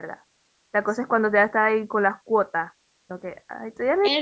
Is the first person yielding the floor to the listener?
Yes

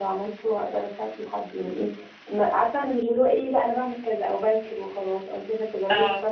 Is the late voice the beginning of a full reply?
No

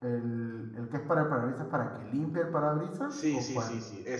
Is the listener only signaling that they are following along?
No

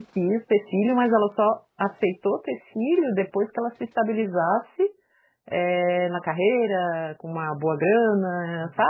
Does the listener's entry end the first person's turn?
Yes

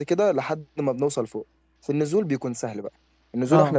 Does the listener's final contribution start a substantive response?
No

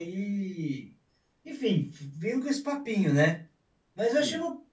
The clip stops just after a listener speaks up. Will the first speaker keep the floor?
Yes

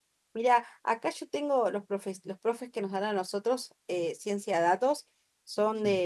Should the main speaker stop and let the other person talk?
No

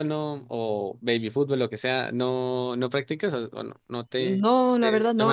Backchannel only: No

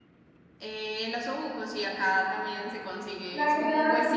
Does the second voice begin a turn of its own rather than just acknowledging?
Yes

